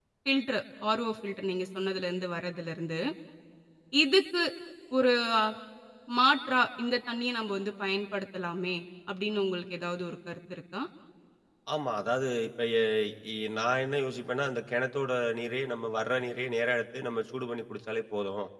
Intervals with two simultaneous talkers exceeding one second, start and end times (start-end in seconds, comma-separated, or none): none